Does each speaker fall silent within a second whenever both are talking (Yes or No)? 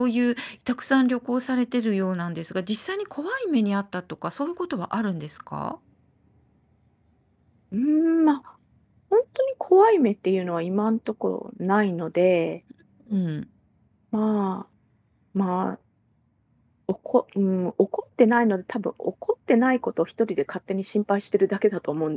Yes